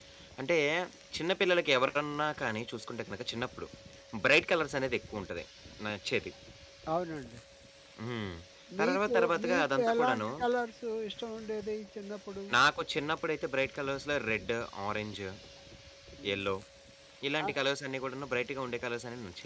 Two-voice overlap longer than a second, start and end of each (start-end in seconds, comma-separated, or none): 8.8-10.3